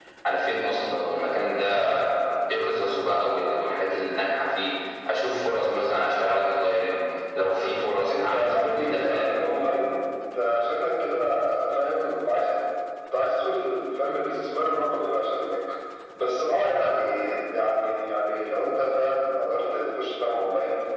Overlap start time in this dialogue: 8.1 s

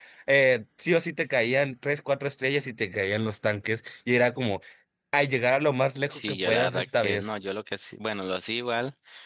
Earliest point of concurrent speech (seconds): 6.1 s

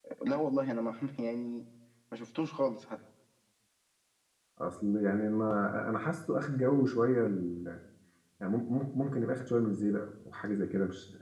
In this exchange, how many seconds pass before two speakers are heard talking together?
none

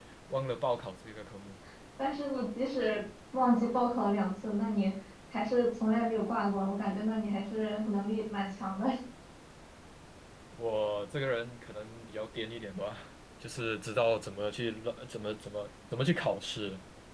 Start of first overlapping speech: none

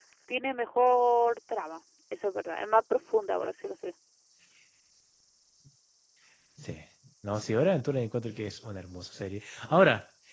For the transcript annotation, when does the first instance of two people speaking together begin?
none

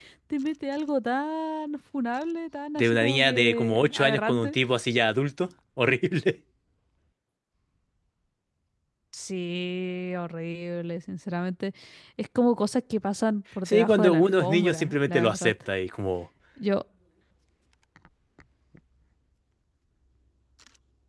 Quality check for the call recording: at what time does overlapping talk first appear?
2.8 s

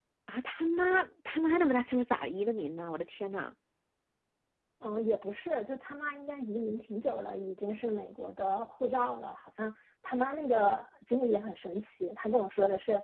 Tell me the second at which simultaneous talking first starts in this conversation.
none

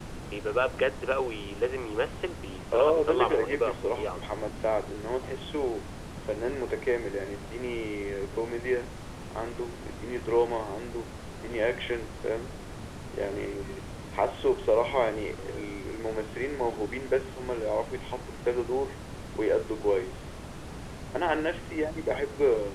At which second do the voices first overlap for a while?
2.7 s

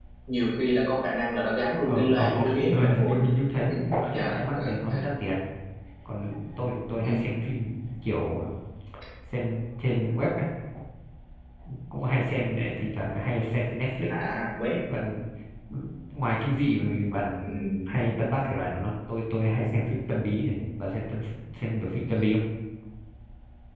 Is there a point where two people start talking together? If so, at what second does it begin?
1.8 s

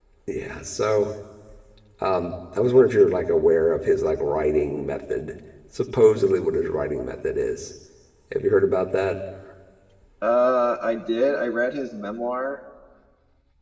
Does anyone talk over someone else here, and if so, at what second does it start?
none

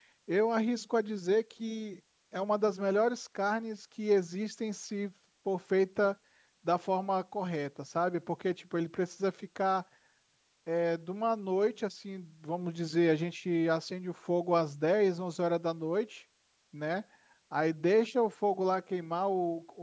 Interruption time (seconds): none

